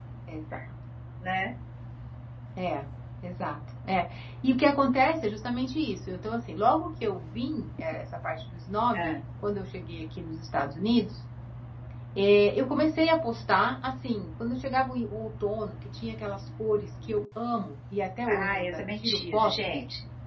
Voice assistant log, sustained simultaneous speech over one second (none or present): present